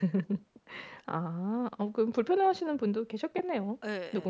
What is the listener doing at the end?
taking over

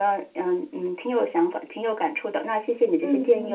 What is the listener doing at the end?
taking over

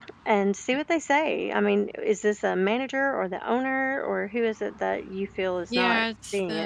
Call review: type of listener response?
taking over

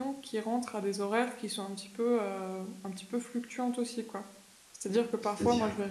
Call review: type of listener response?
listening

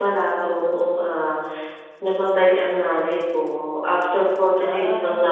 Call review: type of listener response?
listening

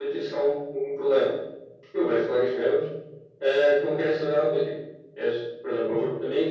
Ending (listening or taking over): listening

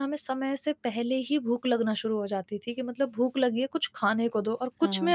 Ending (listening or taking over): taking over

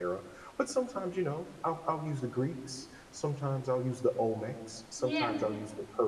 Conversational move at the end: listening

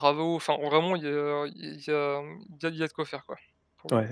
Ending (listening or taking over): taking over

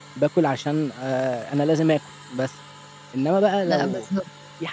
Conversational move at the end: listening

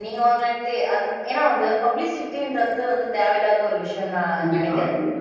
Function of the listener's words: taking over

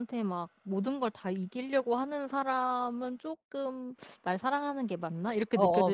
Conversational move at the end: taking over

